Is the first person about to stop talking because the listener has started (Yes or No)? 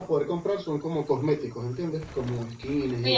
Yes